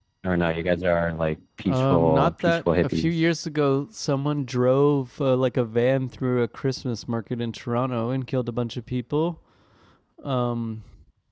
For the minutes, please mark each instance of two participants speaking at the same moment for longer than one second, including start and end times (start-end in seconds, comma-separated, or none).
1.6-3.1